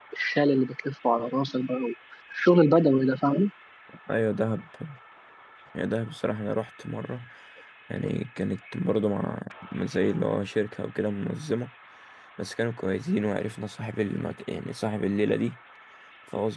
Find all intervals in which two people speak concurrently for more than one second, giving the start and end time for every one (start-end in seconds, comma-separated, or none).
none